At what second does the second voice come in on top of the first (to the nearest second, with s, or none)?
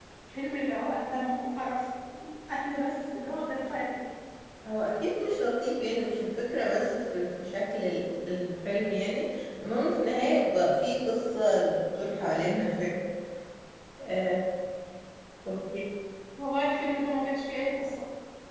none